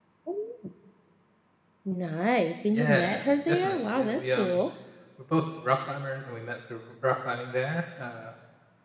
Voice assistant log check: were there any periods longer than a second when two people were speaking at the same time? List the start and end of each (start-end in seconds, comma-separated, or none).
2.7-4.6